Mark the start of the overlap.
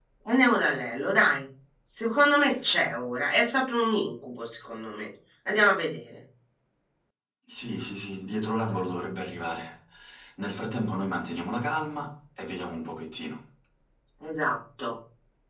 none

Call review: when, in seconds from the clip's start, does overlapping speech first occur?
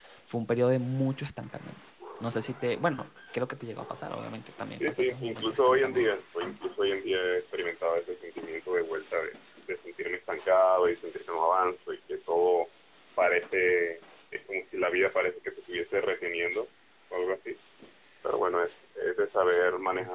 4.8 s

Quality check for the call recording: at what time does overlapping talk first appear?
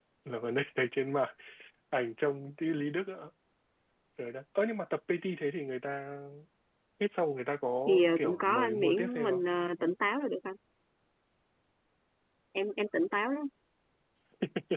7.9 s

